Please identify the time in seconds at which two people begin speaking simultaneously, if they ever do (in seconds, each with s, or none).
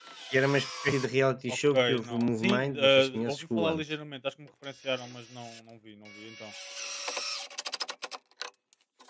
1.5 s